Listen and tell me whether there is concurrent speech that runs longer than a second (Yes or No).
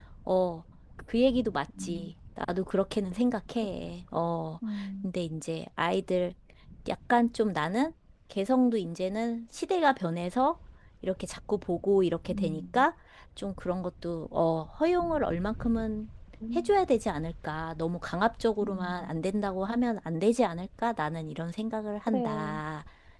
No